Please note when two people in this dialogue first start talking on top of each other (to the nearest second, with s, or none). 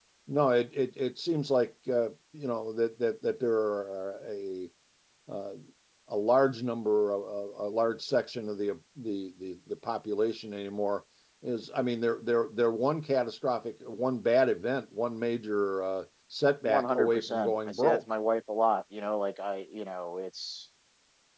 17 s